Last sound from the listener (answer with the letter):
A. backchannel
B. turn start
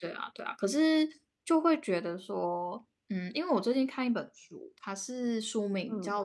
A